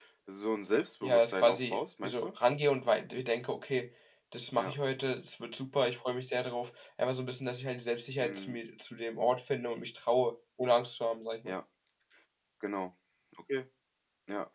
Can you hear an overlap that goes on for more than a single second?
Yes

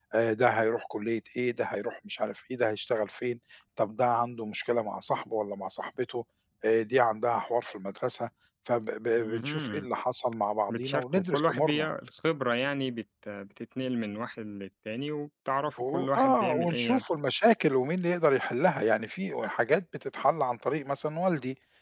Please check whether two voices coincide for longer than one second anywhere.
Yes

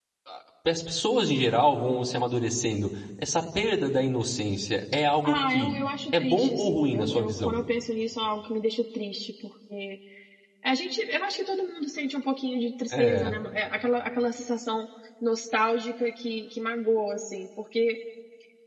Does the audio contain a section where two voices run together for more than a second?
Yes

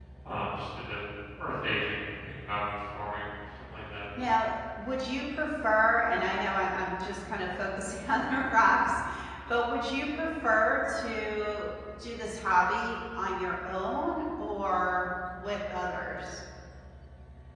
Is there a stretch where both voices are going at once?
No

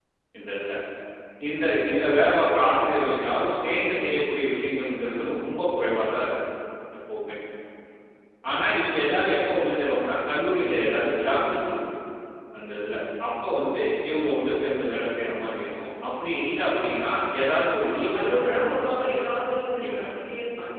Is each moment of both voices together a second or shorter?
No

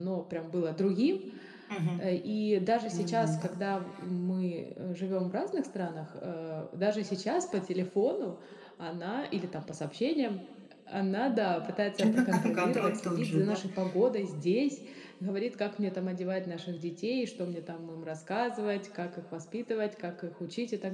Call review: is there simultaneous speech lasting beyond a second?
Yes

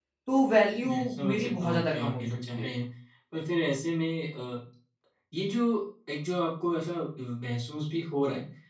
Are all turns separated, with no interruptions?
No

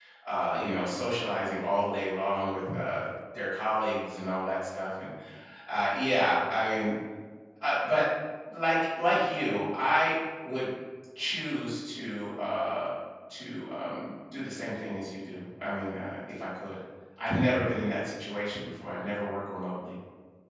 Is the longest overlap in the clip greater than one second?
No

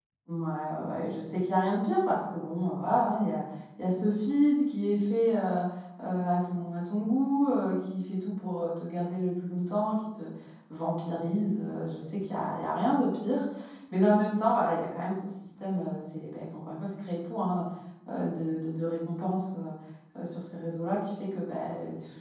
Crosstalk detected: No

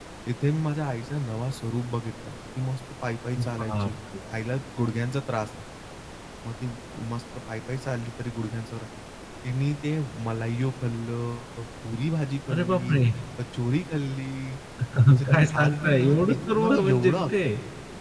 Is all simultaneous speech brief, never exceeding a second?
No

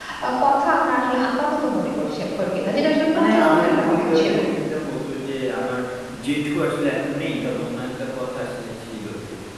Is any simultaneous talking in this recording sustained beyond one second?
Yes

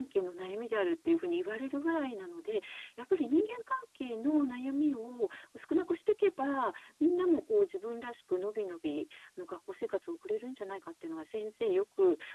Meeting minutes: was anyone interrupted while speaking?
No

